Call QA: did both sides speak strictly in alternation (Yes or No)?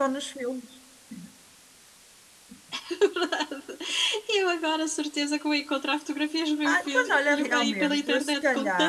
No